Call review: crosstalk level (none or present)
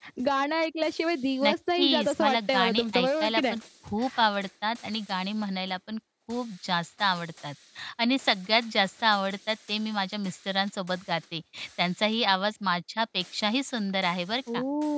present